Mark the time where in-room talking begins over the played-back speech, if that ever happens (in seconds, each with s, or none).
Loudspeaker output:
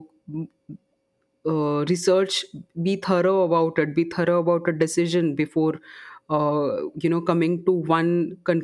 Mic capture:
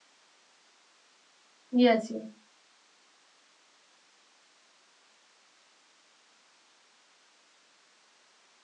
1.7 s